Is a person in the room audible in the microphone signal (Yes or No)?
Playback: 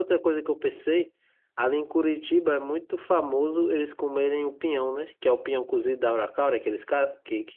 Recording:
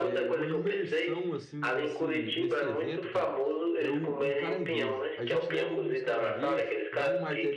Yes